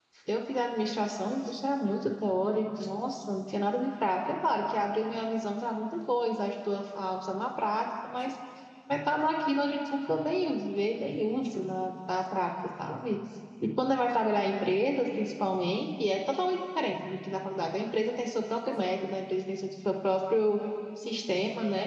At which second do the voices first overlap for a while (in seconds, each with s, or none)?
none